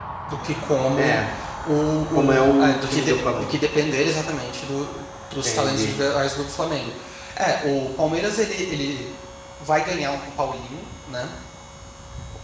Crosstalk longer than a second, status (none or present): present